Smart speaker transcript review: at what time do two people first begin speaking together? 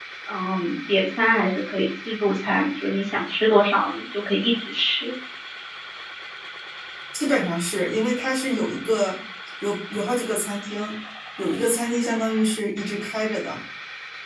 none

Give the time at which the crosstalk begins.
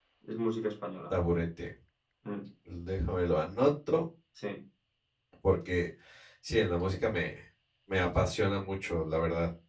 none

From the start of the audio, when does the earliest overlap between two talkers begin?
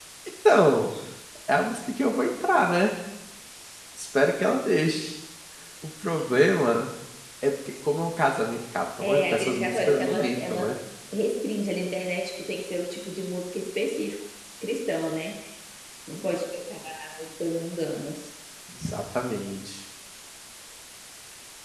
9.0 s

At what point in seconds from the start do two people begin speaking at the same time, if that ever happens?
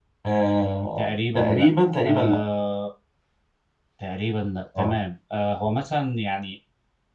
1.0 s

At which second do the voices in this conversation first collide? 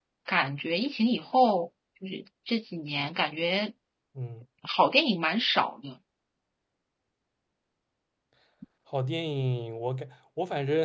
none

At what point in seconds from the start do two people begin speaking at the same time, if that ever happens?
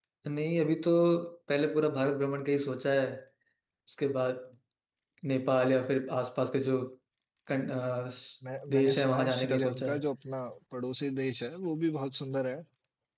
8.7 s

